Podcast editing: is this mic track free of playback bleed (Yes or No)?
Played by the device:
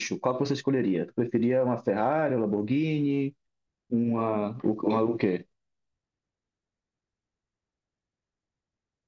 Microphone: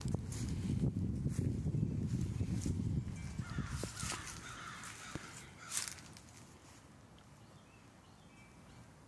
Yes